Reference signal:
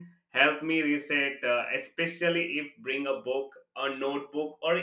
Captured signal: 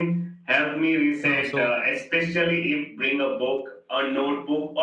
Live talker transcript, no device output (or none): Oh, so